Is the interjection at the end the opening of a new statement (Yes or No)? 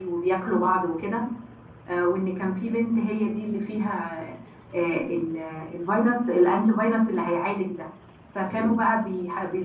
No